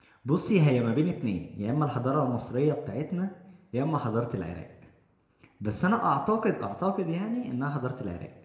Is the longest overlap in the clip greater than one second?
No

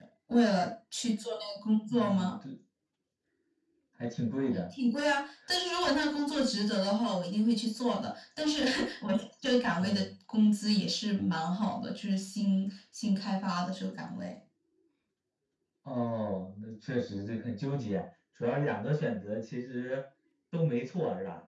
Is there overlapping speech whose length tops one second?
No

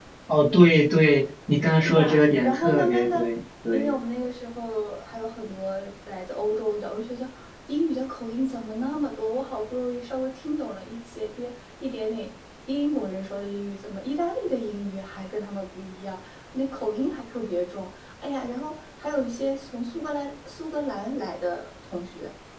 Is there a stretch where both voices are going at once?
Yes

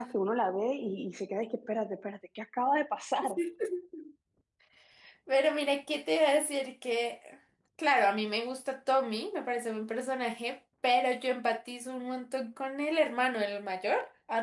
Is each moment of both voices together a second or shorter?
Yes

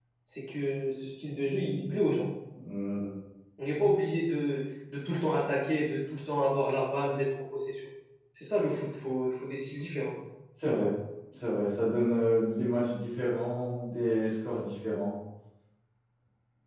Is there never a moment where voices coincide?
Yes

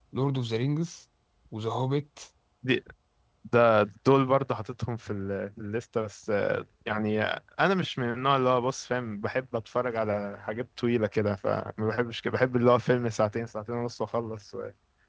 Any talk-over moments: No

